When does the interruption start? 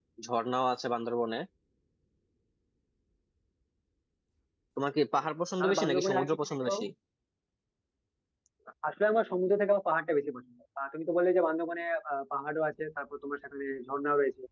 5.6 s

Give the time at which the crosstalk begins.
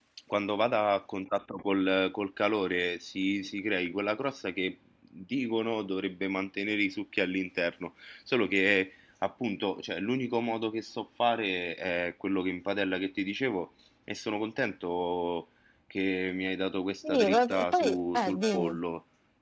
17.0 s

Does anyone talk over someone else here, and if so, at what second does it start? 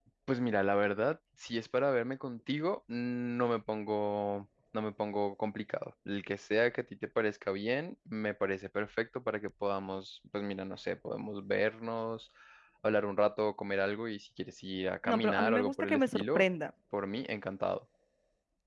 15.1 s

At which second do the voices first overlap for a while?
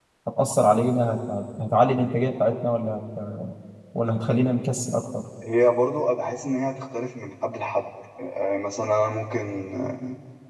none

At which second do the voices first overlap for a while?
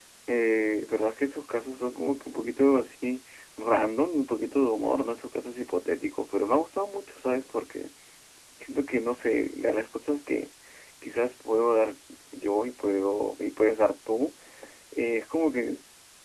none

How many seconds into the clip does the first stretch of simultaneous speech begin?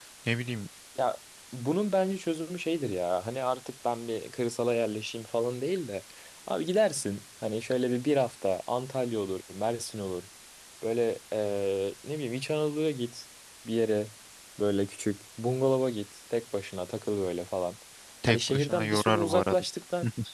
18.3 s

